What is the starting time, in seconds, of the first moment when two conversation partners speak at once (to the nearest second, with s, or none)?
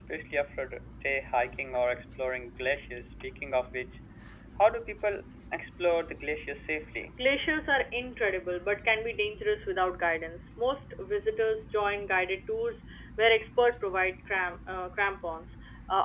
none